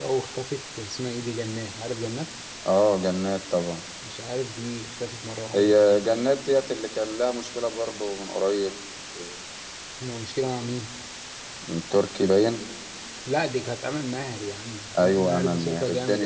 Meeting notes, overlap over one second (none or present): present